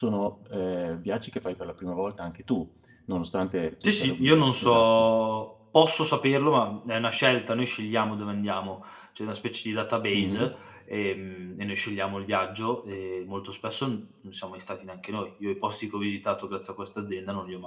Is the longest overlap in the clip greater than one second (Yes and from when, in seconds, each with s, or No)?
Yes, from 3.8 s